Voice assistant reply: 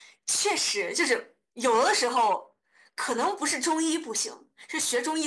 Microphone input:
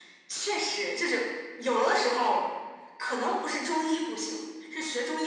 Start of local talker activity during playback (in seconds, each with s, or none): none